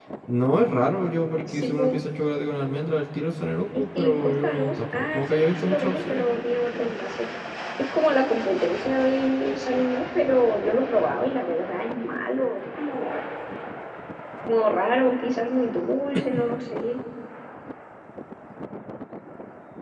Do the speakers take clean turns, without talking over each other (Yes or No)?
No